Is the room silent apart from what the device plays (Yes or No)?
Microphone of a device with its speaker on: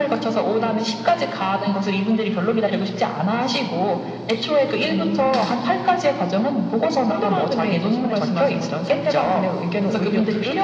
Yes